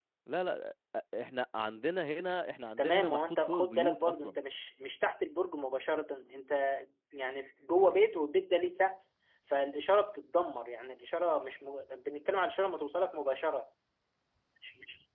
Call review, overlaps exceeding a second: present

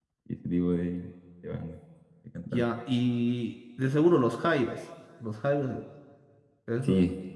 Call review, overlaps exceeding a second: none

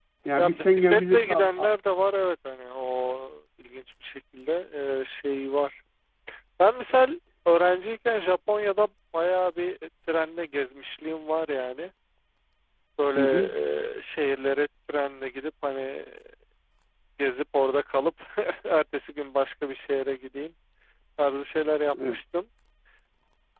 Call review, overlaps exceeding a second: present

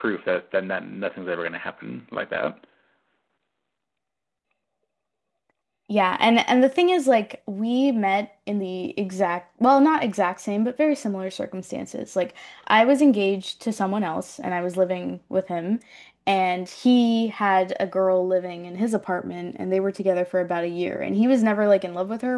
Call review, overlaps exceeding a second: none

